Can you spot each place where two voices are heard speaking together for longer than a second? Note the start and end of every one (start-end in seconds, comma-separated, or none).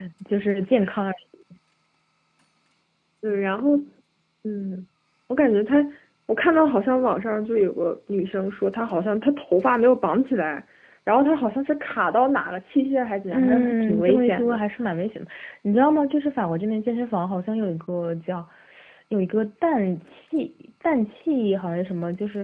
13.3-14.6